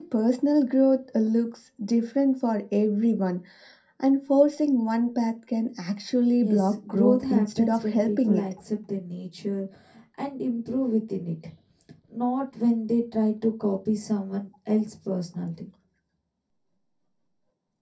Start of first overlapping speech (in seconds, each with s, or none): 6.4 s